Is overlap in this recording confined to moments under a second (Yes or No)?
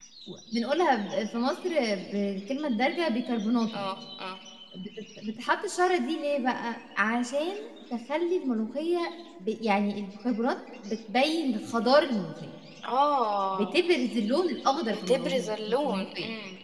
No